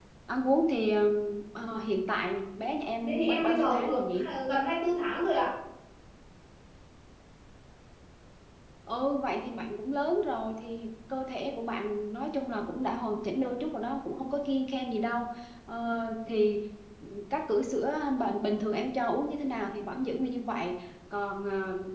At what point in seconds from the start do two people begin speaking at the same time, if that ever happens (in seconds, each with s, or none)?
3.0 s